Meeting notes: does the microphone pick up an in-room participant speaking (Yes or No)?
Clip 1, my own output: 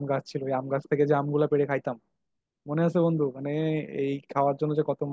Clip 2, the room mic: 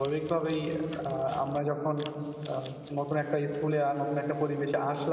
Yes